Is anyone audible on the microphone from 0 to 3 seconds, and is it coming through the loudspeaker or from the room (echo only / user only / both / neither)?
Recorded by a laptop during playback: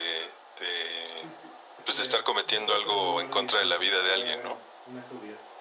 both